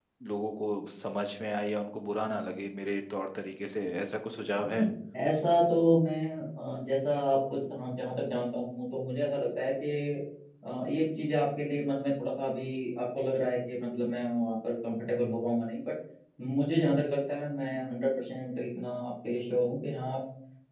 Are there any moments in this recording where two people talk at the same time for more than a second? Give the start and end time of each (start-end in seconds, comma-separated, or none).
none